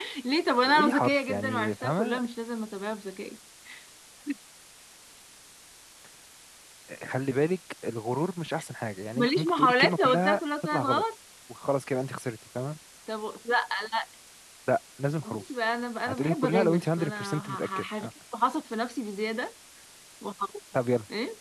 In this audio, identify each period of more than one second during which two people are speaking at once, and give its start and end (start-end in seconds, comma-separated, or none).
0.6-2.2, 9.2-11.0, 16.1-18.1